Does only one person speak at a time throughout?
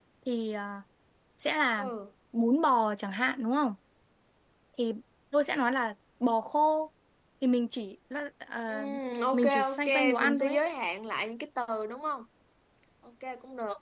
No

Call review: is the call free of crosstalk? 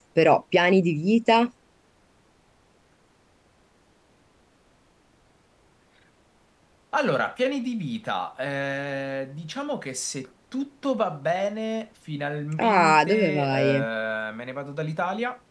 No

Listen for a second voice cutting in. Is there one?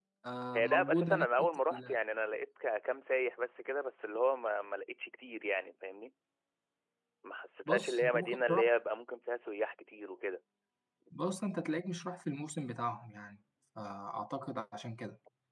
Yes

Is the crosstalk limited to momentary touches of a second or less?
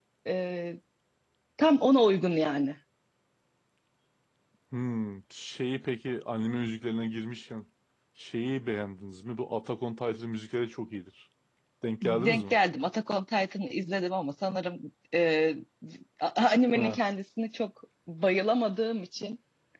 Yes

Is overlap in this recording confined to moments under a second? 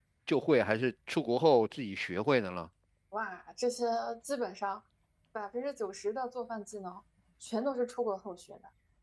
Yes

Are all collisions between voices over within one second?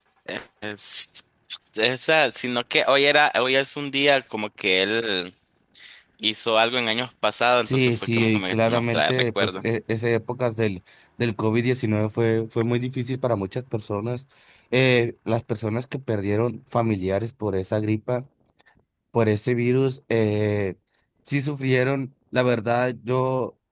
No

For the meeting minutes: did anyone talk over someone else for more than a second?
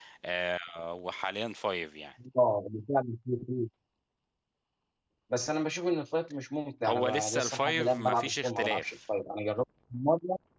Yes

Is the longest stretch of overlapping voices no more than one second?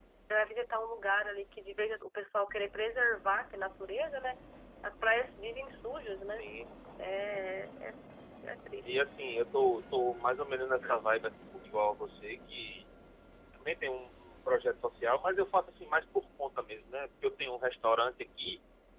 Yes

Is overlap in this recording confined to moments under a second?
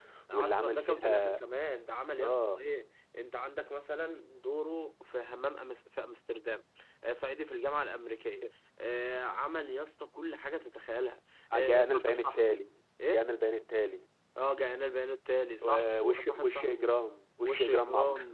No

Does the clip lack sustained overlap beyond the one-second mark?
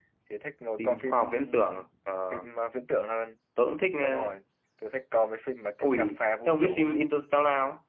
No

